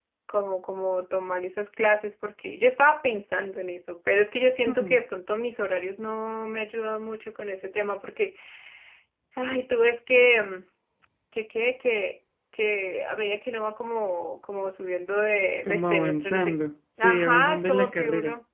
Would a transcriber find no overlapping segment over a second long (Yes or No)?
No